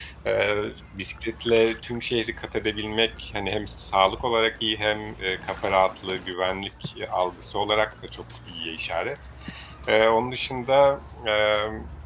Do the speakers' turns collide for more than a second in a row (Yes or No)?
No